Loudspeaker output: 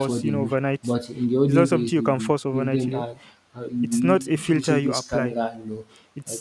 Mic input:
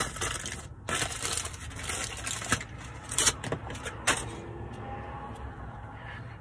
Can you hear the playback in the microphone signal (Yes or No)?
No